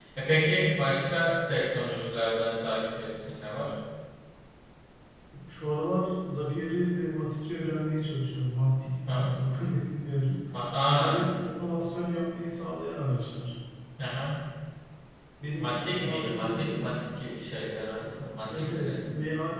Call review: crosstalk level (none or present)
present